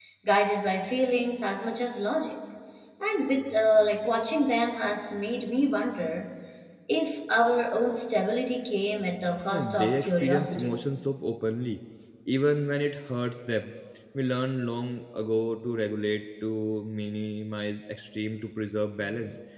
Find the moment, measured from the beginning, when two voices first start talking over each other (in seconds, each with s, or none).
9.5 s